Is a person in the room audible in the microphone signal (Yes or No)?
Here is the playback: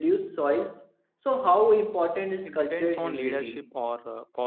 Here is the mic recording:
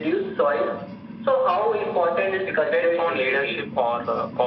No